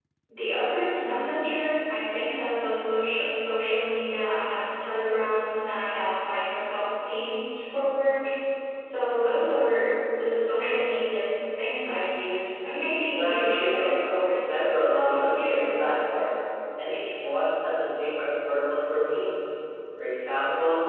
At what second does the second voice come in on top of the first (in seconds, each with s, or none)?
13.1 s